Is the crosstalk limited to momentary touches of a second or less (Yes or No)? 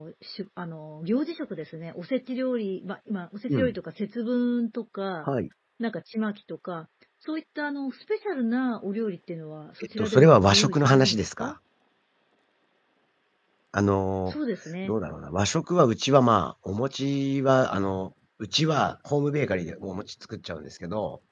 No